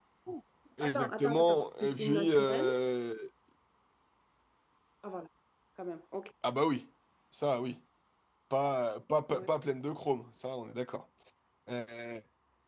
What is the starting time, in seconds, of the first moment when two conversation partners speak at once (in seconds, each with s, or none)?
0.8 s